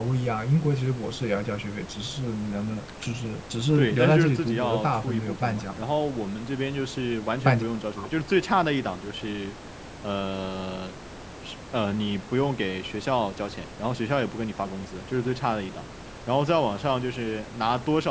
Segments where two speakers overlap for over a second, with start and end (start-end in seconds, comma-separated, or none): 3.8-5.7